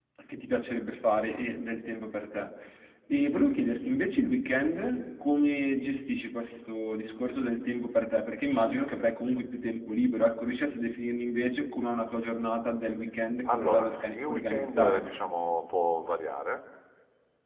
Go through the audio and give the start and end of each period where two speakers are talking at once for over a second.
13.5-15.1

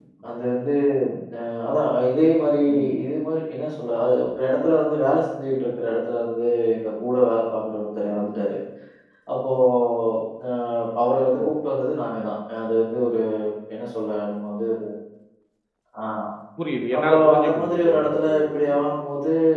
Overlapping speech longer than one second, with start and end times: 17.0-18.9

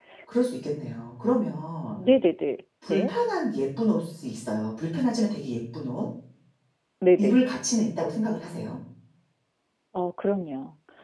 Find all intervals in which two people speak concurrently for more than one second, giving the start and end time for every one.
none

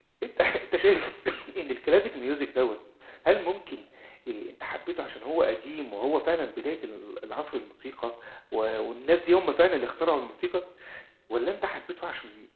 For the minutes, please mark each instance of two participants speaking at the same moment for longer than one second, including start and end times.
none

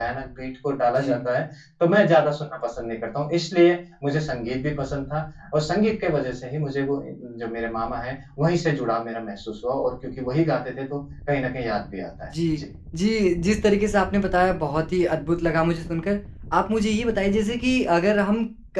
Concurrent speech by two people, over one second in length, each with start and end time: none

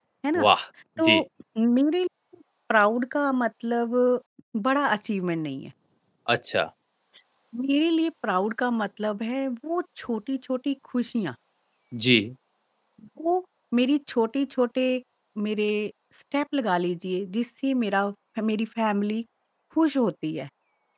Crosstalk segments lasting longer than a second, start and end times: none

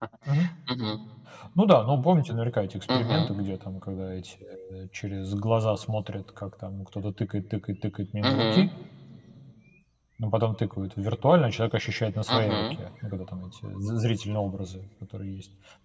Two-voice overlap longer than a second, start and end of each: none

